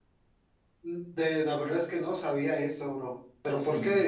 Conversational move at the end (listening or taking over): listening